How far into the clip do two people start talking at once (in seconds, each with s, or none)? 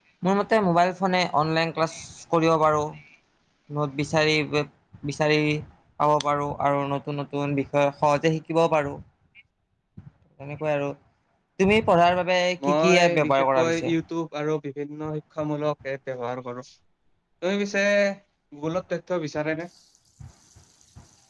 12.6 s